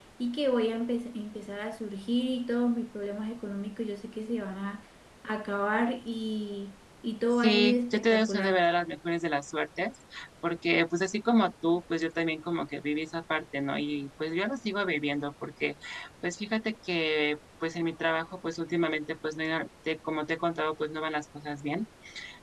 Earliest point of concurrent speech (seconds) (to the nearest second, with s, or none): 7 s